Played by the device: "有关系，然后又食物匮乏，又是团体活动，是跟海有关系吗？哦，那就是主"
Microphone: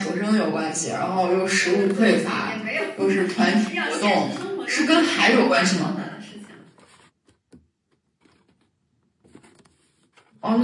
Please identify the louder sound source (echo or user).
echo